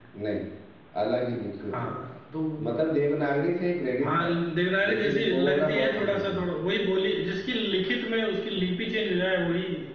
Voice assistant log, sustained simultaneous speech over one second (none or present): present